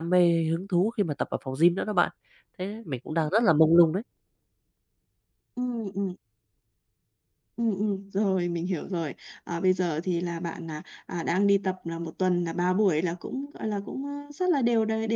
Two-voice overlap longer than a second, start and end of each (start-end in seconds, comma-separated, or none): none